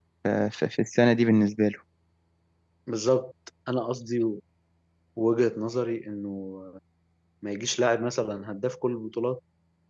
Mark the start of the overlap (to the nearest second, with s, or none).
none